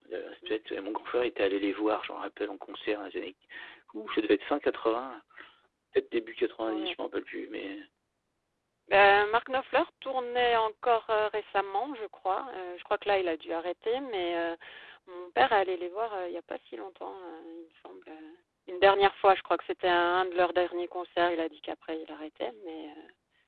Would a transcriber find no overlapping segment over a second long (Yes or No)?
Yes